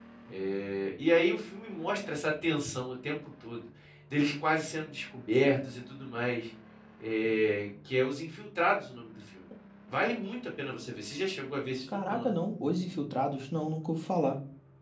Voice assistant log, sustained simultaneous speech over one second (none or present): none